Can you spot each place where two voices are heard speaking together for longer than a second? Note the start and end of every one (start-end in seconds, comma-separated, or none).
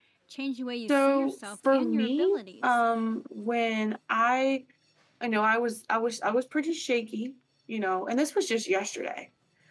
0.9-2.8